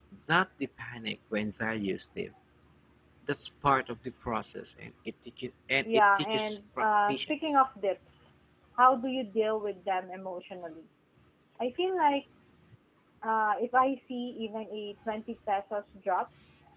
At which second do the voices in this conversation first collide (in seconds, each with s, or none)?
5.8 s